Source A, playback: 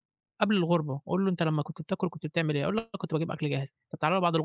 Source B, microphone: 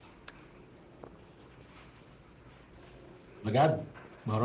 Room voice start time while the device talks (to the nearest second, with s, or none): 3 s